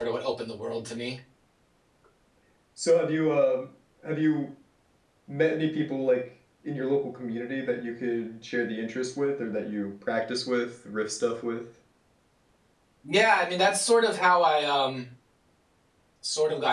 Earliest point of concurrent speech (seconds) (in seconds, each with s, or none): none